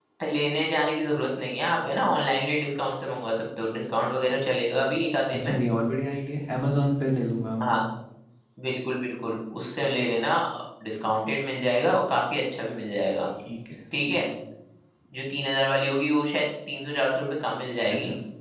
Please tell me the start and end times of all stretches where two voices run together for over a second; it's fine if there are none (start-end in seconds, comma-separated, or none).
none